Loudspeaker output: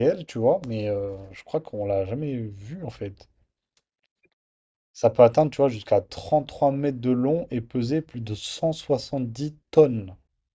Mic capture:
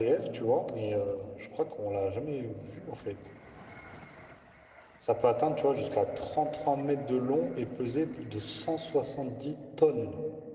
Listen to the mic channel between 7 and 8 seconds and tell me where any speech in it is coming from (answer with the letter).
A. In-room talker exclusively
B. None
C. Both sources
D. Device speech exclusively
D